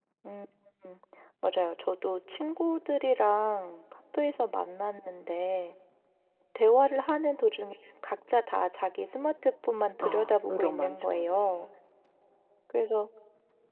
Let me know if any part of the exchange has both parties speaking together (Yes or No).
Yes